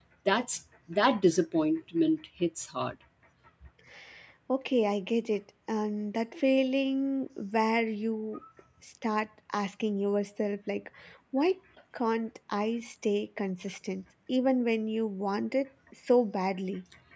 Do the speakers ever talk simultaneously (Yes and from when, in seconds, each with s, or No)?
No